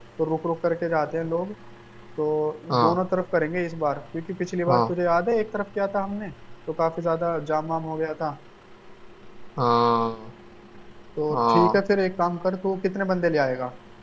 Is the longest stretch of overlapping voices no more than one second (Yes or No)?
Yes